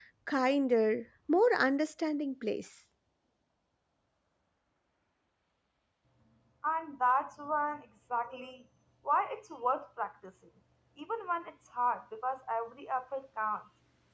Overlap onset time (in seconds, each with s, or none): none